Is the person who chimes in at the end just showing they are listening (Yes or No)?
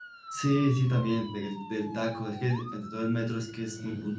No